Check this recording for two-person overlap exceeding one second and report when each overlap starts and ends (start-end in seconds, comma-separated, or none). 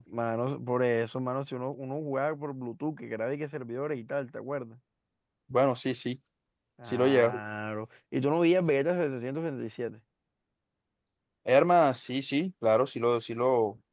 none